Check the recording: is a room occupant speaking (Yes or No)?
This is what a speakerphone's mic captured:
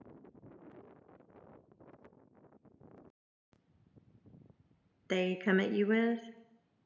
Yes